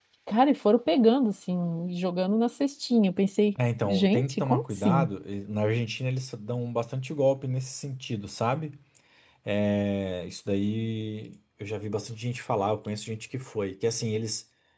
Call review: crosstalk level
present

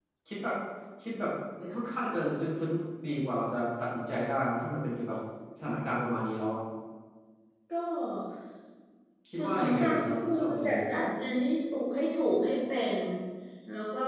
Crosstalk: present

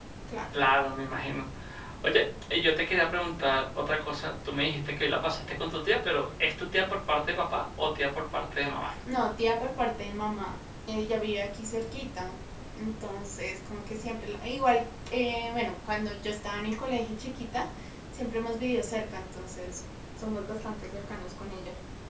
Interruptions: none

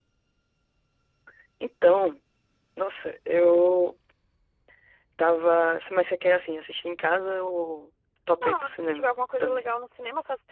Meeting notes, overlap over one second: present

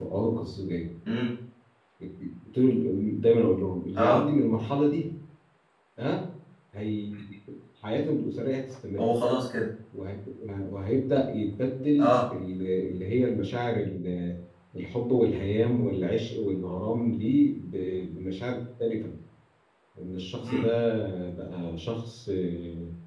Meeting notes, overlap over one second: none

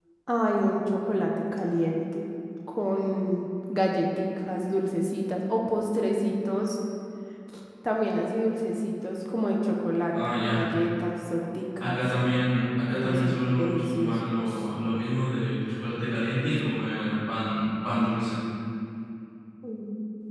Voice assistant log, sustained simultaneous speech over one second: present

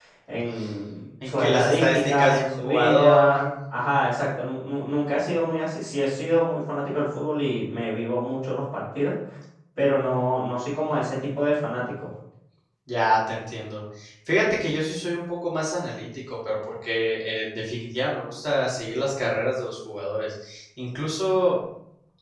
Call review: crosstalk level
present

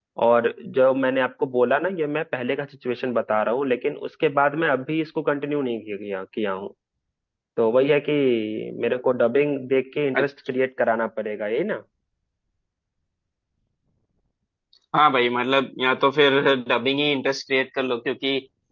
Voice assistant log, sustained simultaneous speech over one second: none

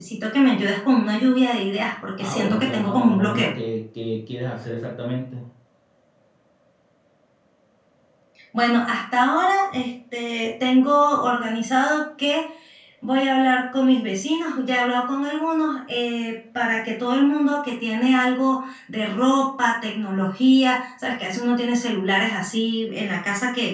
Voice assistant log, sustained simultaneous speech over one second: present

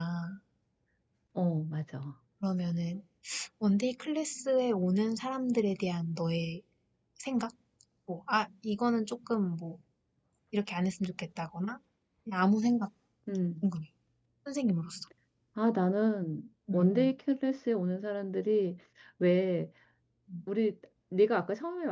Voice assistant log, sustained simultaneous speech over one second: none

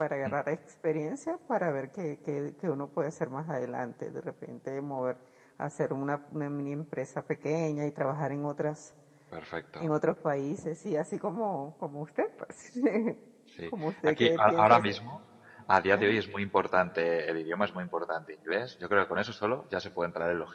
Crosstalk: present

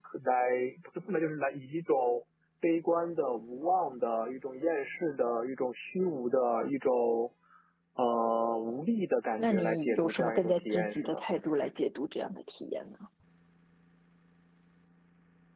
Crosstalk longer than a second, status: present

